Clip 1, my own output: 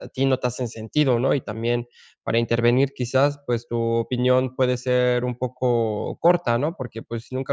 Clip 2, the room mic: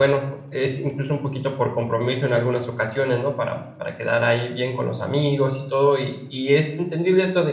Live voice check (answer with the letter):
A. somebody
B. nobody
A